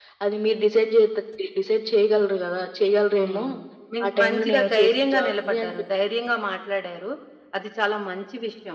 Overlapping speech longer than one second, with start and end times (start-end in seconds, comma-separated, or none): 4.0-5.7